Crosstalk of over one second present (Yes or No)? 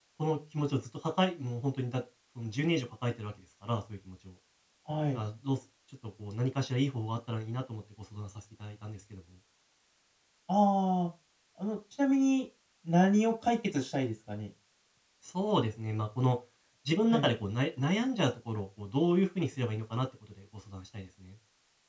No